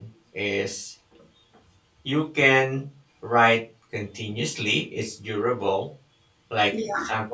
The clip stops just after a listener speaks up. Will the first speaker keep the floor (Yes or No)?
Yes